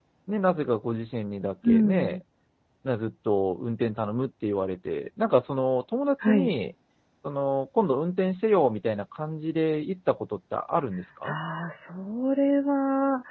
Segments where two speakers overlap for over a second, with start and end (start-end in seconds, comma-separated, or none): none